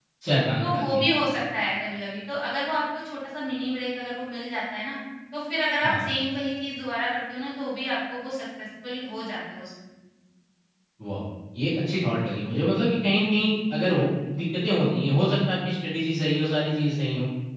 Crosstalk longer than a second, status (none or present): none